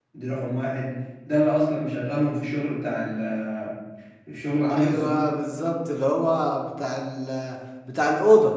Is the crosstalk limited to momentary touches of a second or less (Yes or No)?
Yes